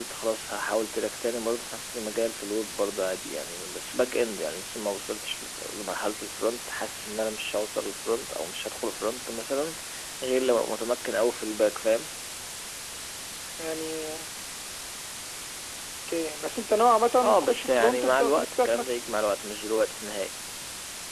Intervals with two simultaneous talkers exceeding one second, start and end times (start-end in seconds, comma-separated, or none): 17.2-18.9